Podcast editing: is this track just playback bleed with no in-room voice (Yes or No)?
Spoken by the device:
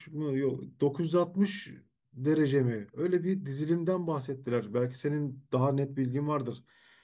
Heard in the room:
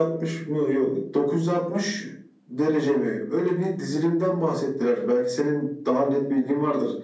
Yes